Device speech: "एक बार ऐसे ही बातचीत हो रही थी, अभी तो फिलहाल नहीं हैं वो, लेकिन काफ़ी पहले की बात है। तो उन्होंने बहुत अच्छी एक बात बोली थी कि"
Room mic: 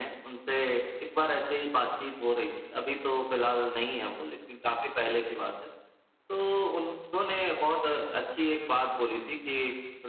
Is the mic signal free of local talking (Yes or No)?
Yes